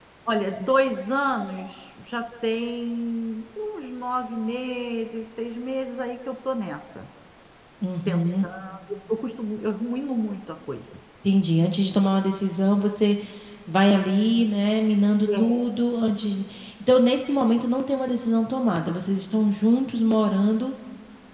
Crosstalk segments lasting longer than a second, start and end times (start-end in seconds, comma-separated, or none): none